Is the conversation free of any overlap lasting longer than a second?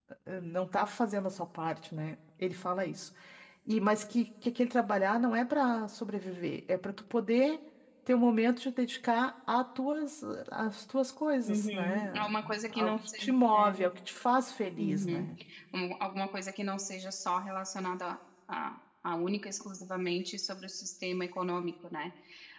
No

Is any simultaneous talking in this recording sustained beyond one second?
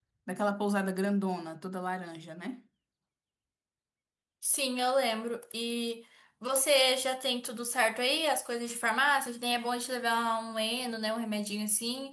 No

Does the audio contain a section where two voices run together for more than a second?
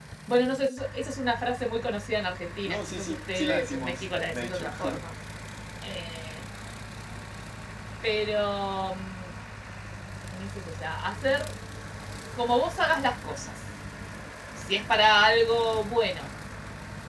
Yes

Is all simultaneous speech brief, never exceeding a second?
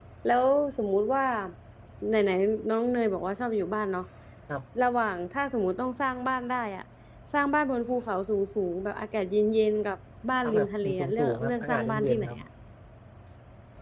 No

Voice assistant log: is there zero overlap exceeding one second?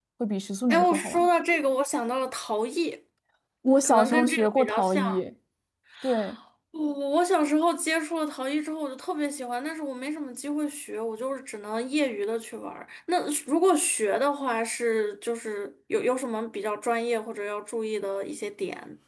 No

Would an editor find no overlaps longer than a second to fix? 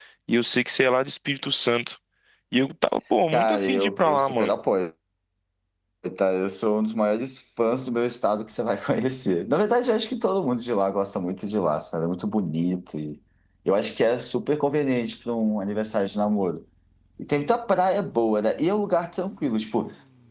No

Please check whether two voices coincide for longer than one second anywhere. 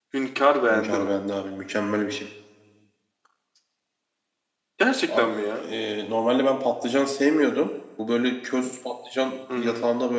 No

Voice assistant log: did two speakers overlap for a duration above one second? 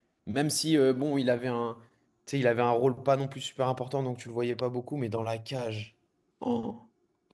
No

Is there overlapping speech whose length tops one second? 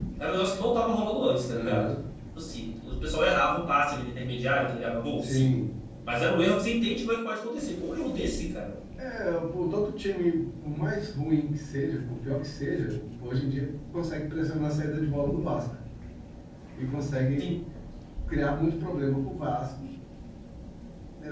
No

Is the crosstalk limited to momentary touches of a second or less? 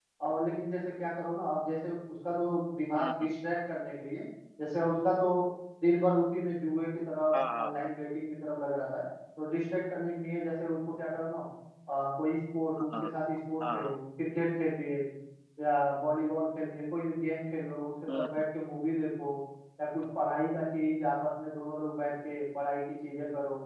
Yes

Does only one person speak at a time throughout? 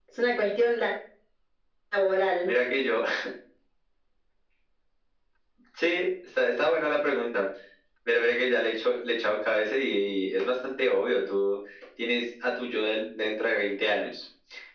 Yes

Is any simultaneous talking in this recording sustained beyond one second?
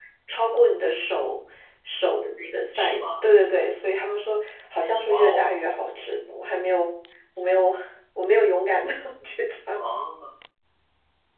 No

